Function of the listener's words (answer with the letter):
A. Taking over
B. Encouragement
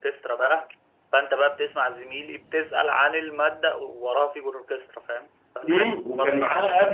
A